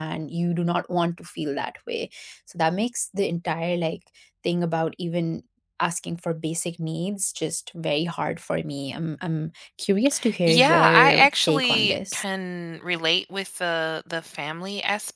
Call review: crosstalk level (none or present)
present